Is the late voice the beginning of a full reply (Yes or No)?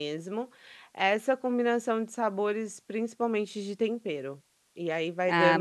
Yes